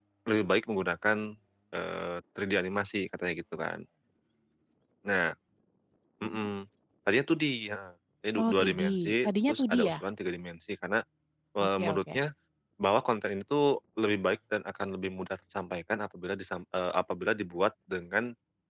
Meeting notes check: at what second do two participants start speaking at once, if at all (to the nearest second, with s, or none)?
8 s